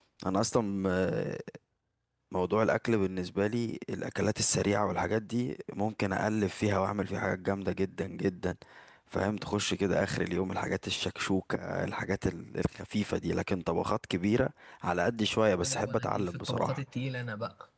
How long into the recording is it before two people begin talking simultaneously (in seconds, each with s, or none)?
15.5 s